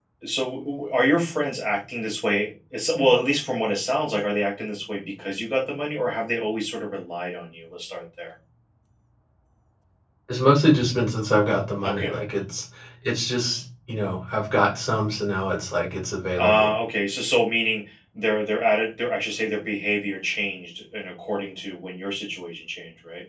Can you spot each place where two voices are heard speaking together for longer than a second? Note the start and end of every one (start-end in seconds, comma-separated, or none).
none